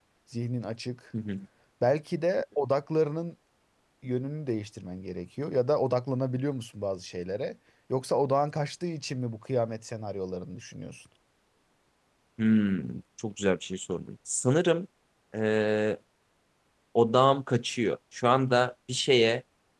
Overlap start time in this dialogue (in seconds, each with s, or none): none